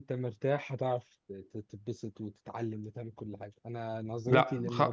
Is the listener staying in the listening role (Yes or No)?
No